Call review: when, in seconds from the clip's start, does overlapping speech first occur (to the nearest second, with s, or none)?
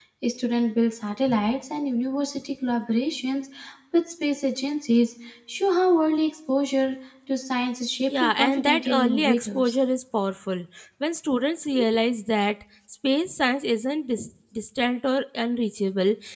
8 s